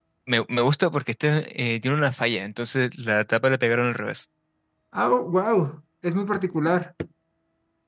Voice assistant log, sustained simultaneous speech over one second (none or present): none